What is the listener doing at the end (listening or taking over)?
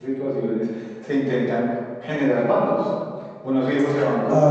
listening